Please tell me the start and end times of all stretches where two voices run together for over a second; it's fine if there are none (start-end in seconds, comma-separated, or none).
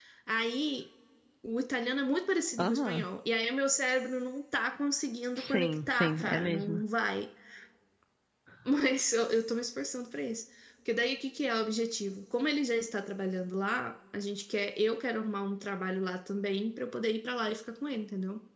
5.4-6.8